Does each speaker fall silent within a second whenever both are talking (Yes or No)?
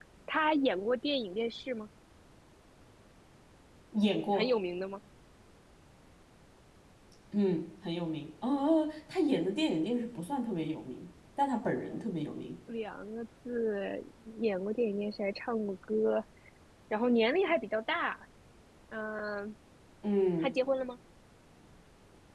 Yes